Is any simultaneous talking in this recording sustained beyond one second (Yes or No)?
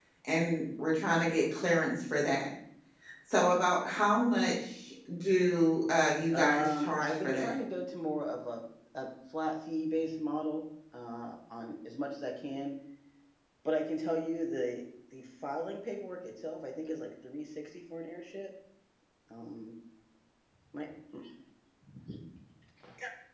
Yes